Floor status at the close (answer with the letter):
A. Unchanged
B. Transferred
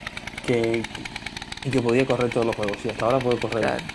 A